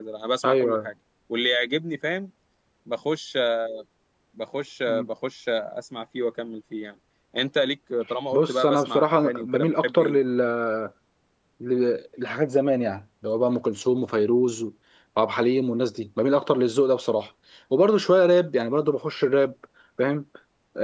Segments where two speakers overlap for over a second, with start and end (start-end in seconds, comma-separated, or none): 8.3-10.2